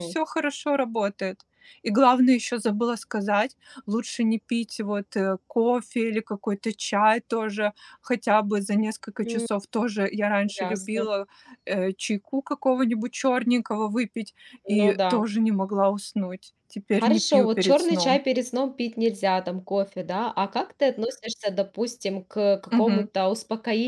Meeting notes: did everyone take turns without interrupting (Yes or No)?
No